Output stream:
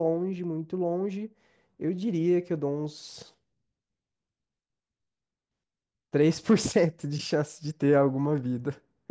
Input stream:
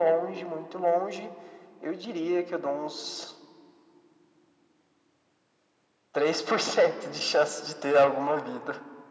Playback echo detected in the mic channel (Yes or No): Yes